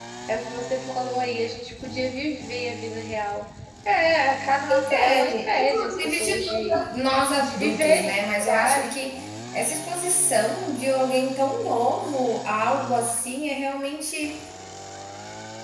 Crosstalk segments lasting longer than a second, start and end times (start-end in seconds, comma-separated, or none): 4.9-6.8, 7.4-8.9